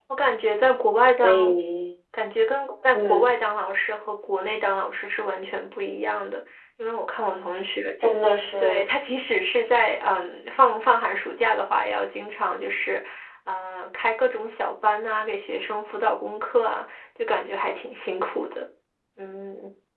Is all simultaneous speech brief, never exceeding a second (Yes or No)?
Yes